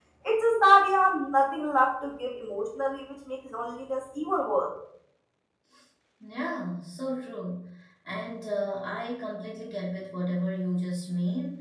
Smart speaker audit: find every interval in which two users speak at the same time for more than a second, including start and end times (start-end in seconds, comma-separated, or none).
none